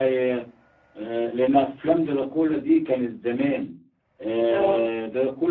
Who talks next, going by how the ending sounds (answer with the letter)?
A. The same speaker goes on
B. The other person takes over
A